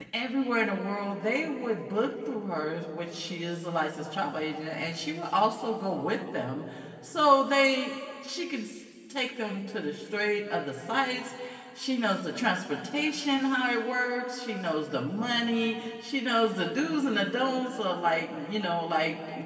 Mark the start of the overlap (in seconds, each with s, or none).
none